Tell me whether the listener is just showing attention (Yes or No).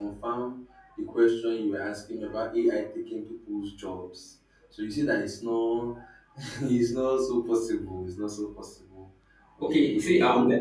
No